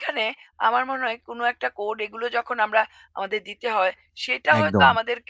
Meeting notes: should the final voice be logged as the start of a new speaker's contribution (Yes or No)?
No